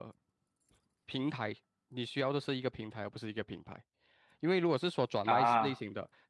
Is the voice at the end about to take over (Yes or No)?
No